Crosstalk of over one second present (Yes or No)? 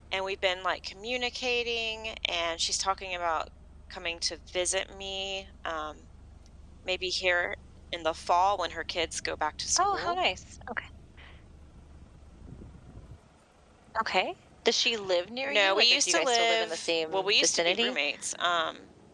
Yes